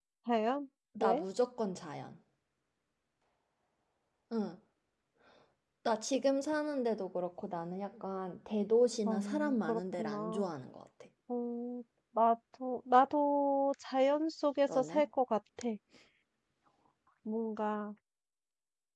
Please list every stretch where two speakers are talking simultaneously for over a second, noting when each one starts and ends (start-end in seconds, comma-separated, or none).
9.1-10.5